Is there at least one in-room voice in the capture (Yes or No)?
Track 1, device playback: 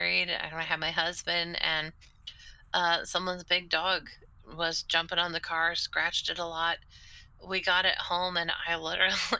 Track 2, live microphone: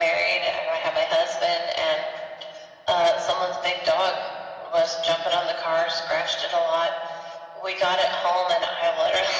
No